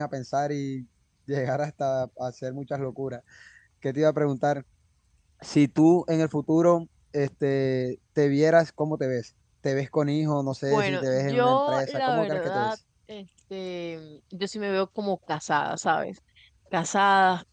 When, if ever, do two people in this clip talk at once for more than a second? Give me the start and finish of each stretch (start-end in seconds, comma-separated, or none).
10.7-12.8